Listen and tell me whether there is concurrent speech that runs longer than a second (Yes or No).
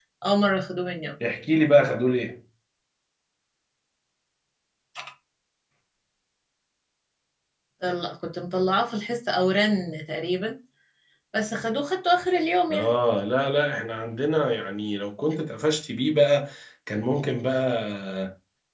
No